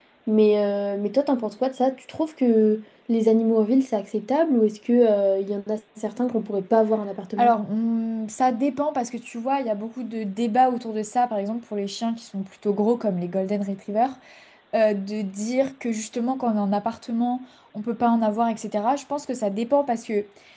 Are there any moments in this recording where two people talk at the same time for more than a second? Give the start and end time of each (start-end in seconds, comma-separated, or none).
none